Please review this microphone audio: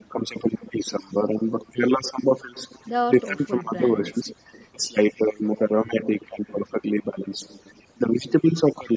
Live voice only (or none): they are thoughtful, balanced.